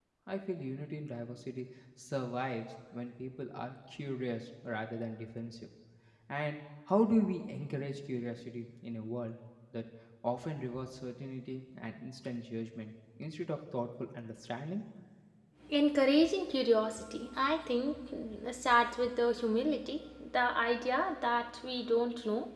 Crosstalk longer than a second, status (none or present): none